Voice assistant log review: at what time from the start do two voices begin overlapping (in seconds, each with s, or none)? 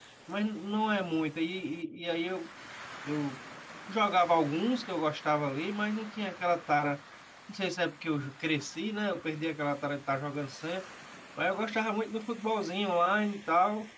none